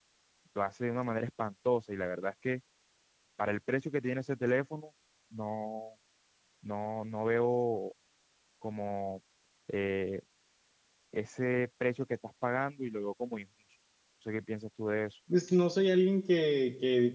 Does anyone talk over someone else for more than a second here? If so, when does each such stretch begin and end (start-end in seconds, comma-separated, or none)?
none